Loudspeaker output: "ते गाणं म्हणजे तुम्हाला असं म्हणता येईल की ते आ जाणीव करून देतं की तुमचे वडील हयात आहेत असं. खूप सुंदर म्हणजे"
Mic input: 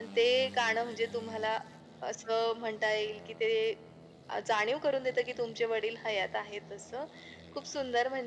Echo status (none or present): present